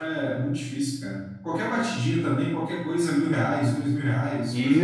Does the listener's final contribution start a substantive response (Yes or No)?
Yes